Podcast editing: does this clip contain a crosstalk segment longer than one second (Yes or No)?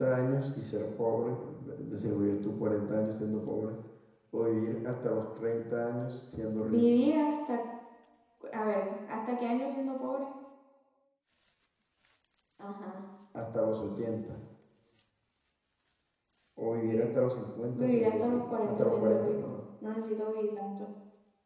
Yes